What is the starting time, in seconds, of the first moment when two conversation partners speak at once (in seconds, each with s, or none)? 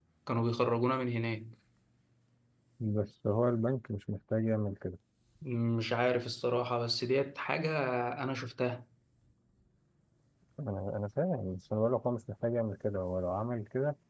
none